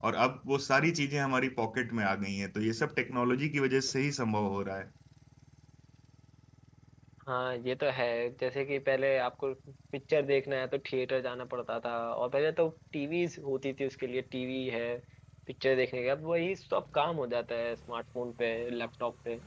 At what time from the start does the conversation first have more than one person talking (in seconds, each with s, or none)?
none